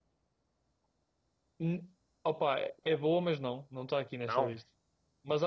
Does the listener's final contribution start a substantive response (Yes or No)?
No